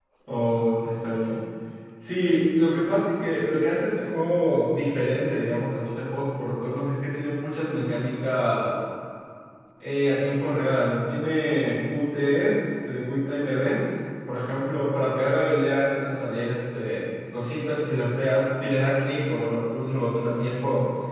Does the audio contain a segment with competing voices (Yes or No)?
No